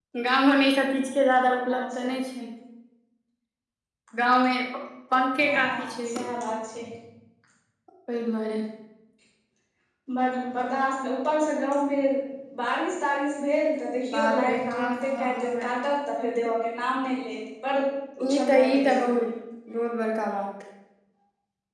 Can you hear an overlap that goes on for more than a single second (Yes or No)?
Yes